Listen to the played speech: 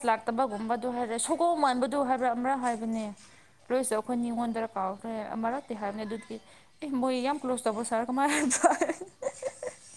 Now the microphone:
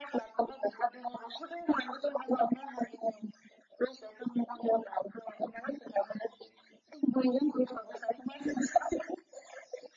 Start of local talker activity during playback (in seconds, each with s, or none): none